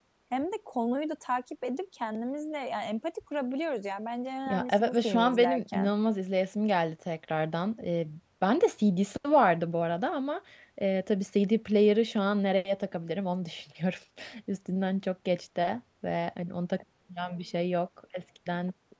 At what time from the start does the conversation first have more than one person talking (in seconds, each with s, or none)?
4.5 s